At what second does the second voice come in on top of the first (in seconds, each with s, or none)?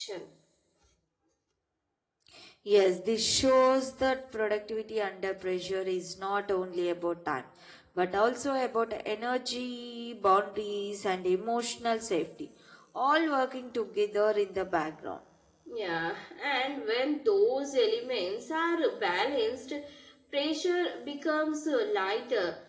none